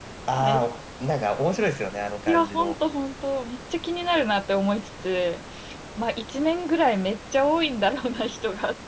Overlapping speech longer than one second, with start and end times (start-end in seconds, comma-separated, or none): none